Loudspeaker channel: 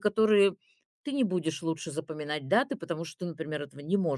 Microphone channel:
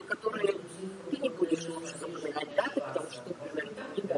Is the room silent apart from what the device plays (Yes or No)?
No